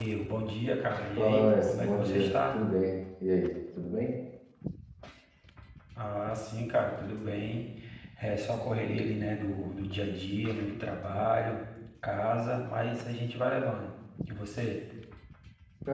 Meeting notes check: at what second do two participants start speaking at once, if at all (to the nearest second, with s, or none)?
1 s